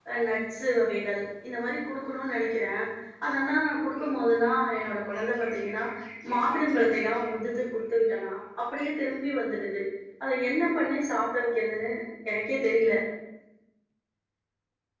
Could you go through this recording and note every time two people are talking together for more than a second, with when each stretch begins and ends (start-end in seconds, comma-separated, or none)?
none